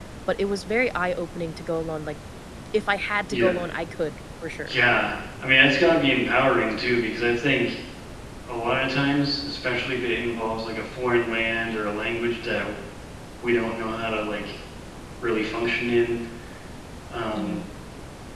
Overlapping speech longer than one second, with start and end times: none

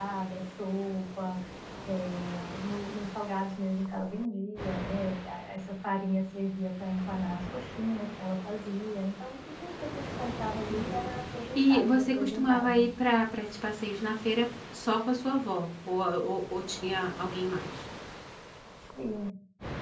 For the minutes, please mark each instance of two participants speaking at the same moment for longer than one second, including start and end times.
11.6-12.8

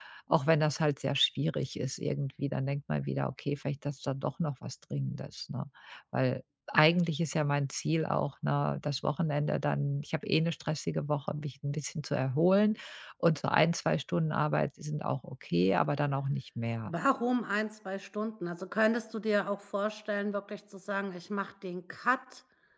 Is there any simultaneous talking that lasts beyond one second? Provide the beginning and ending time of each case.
none

